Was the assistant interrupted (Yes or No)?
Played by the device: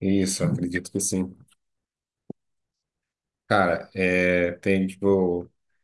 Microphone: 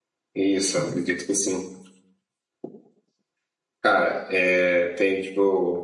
No